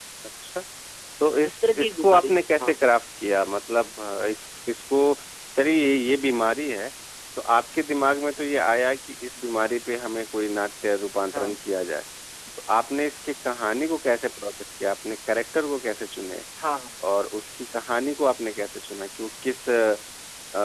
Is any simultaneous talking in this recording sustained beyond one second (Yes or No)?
Yes